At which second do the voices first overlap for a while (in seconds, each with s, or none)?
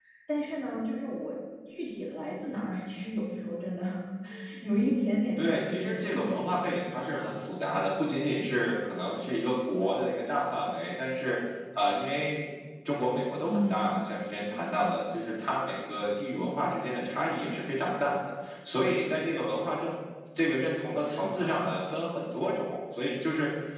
5.4 s